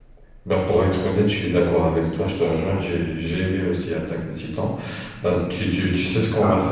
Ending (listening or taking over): listening